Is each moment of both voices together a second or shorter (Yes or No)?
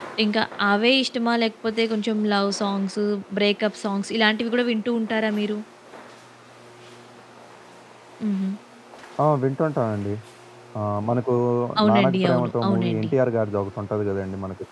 No